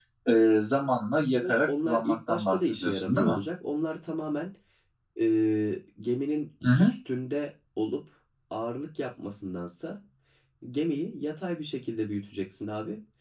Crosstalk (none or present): present